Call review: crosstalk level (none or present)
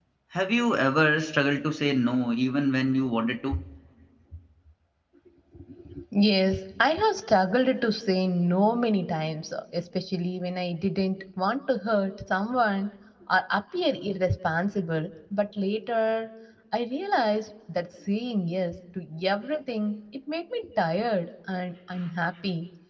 none